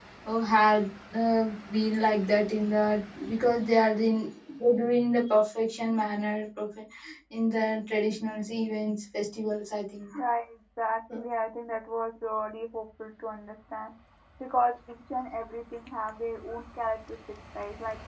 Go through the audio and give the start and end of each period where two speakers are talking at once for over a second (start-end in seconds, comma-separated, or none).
none